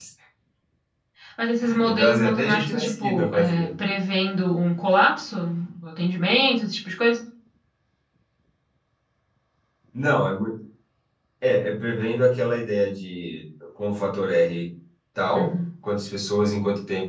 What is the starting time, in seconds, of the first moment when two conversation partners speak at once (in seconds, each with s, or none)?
1.8 s